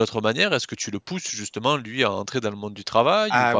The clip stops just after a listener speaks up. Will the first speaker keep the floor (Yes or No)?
No